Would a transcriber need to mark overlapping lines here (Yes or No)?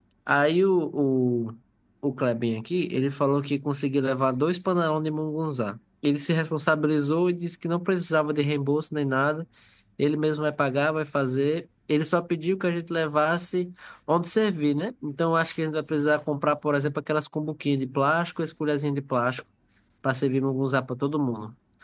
No